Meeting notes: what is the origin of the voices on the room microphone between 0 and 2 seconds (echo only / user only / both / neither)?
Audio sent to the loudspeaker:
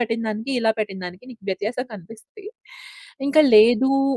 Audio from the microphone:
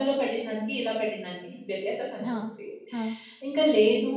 echo only